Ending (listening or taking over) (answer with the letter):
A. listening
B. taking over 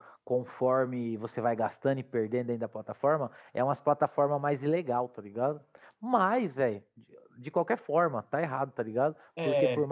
A